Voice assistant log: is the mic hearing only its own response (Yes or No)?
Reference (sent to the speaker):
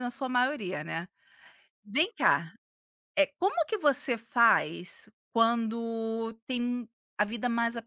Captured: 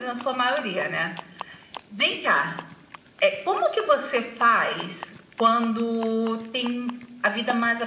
Yes